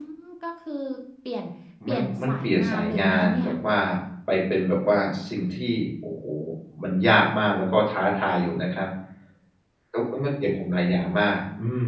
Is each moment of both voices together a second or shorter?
No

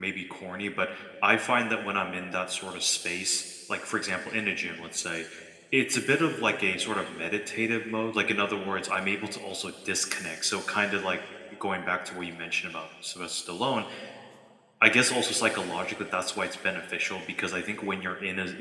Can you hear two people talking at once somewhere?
No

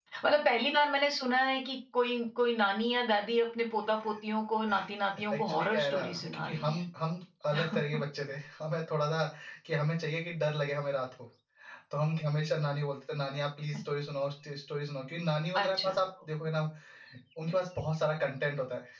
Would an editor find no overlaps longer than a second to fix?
No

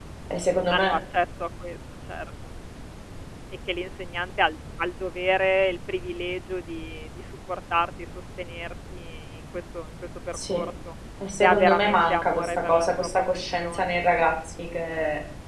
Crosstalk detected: Yes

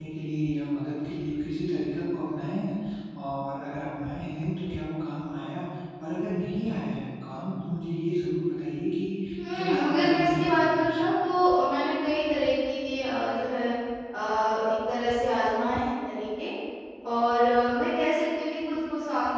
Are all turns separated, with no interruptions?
No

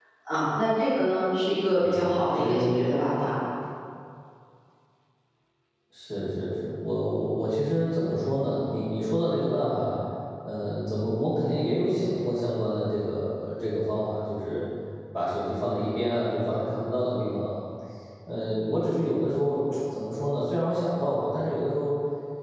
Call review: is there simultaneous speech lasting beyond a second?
Yes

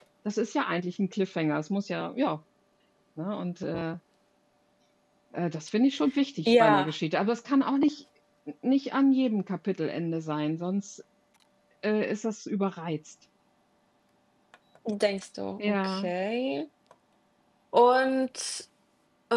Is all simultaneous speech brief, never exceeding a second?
Yes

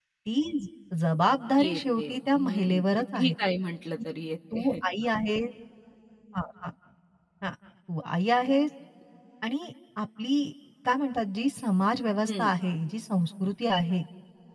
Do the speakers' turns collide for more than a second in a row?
Yes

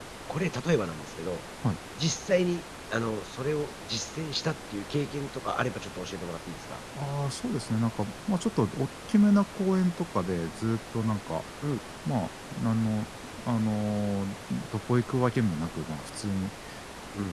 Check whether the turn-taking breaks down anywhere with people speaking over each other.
No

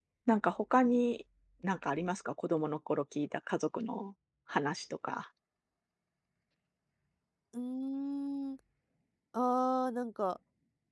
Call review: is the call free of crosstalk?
Yes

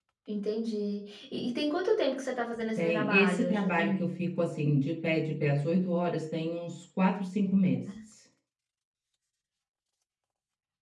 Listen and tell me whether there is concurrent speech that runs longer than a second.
Yes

